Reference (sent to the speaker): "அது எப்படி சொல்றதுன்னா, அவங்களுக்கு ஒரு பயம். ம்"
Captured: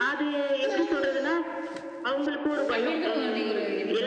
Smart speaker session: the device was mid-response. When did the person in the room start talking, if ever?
2.7 s

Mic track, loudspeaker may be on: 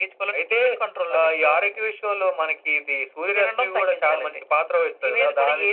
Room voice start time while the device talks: none

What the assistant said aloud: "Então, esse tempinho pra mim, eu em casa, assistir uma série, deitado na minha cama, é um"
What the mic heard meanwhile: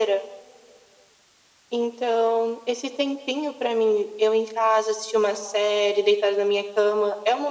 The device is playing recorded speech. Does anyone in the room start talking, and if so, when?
none

